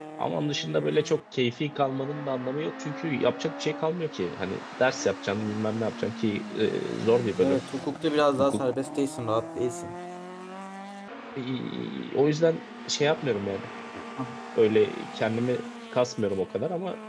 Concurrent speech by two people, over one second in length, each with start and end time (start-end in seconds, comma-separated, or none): none